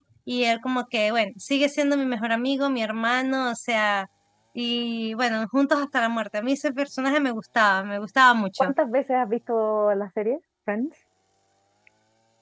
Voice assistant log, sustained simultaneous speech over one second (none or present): none